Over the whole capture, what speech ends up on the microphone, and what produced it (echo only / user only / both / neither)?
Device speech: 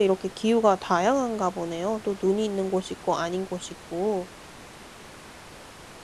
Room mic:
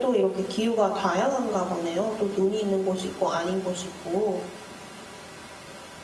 echo only